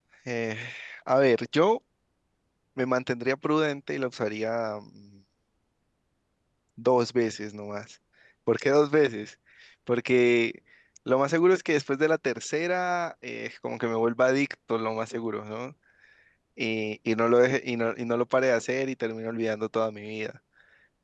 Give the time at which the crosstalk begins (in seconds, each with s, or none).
none